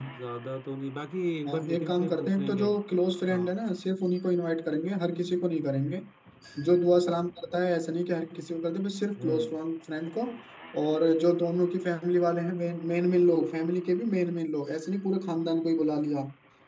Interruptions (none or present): present